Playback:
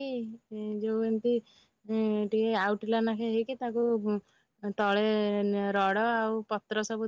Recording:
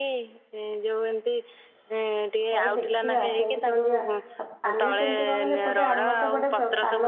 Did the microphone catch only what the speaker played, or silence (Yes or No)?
No